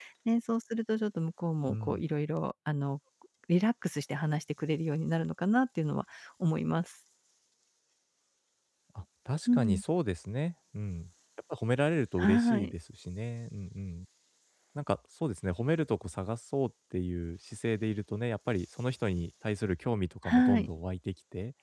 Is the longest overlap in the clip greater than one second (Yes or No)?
No